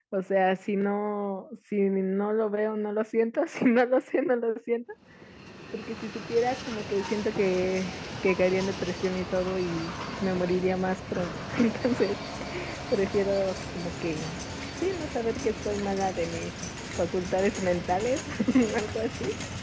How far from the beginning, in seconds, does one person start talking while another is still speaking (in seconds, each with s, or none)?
none